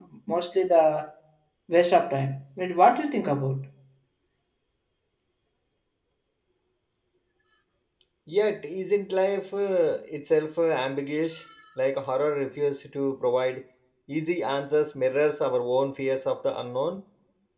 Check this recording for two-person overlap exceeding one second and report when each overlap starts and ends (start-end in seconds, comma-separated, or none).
none